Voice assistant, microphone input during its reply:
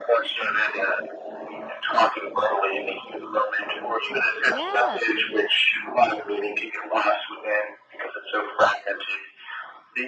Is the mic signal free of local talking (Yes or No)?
No